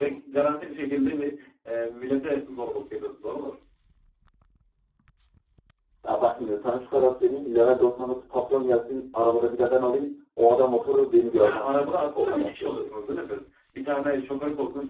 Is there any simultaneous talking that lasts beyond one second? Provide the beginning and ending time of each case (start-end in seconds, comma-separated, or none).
11.4-12.9